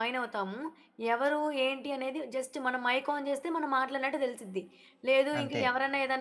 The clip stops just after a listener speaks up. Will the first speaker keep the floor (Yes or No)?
Yes